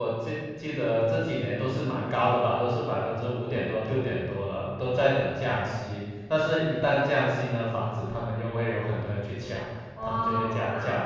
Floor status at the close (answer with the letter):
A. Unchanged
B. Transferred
B